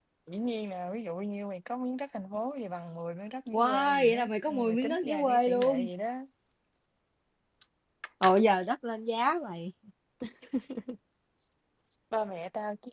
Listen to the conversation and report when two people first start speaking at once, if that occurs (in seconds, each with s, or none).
3.5 s